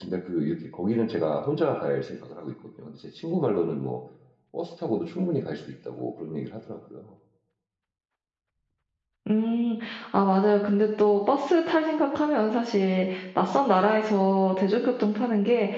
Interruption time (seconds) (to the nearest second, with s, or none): none